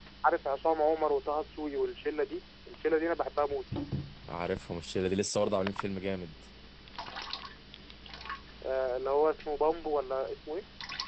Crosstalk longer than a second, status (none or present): none